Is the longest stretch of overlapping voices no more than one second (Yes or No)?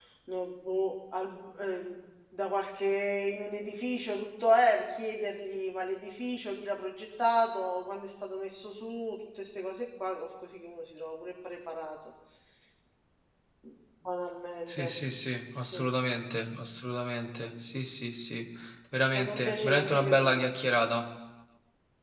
No